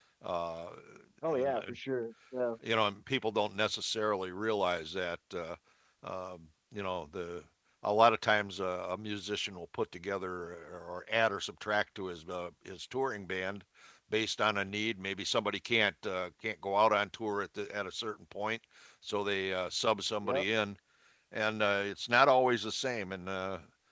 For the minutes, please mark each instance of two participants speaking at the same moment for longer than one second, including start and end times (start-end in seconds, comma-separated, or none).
none